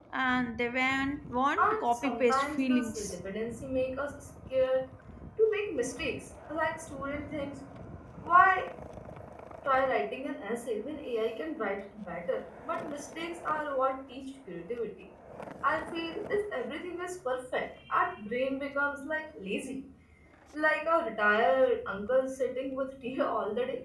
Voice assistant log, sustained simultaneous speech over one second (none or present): present